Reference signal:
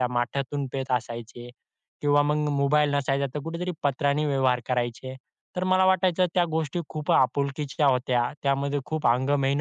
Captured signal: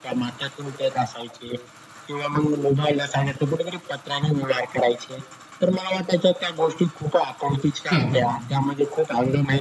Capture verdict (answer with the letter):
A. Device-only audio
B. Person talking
B